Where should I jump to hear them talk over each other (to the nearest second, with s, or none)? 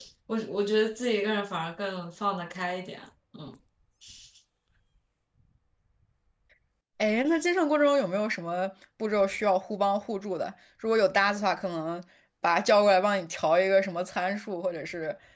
none